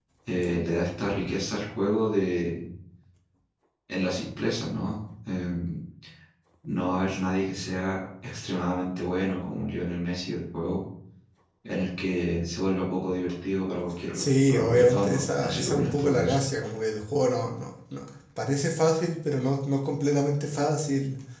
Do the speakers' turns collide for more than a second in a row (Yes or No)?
Yes